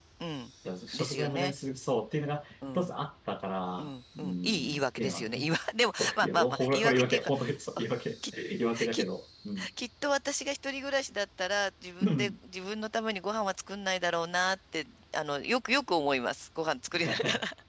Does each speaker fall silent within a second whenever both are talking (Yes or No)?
No